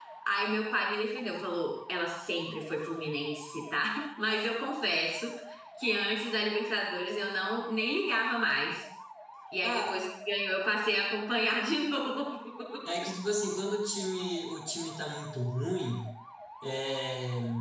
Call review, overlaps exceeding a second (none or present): none